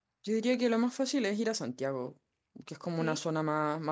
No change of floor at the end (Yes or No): Yes